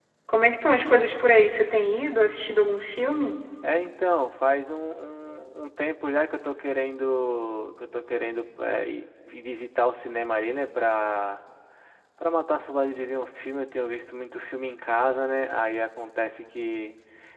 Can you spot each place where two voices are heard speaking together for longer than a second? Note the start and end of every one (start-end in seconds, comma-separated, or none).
none